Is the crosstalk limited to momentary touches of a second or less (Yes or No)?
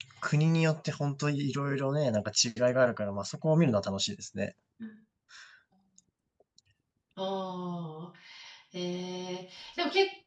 Yes